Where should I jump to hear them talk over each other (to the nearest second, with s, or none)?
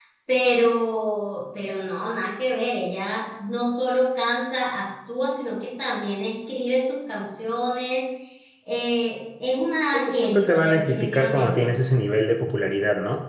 10 s